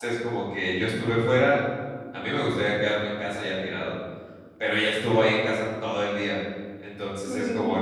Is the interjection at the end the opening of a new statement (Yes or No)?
No